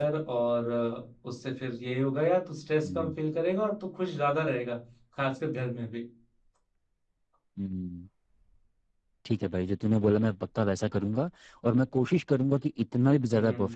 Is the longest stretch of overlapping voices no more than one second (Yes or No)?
Yes